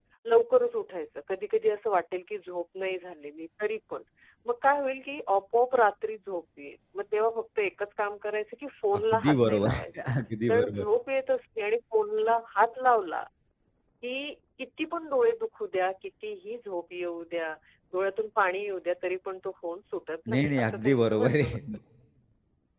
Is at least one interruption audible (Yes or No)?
Yes